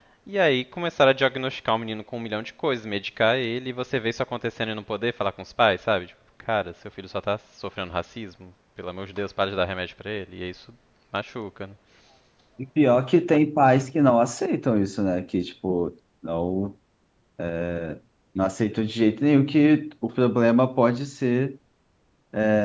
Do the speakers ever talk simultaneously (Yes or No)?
No